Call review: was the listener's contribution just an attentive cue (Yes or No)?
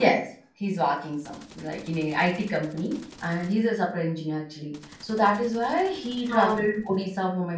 Yes